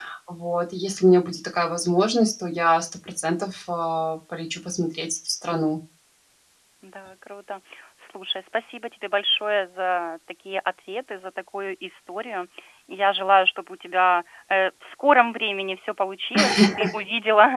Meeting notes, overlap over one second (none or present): none